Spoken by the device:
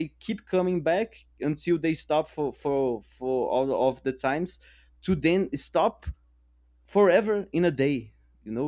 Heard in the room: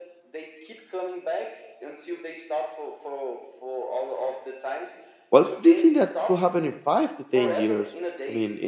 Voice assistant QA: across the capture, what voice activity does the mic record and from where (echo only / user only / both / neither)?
both